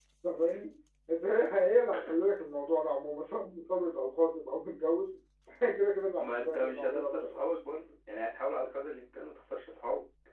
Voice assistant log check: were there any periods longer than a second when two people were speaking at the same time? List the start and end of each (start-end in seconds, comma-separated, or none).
6.2-7.4